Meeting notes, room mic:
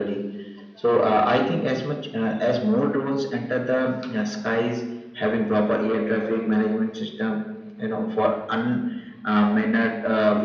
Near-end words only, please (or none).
none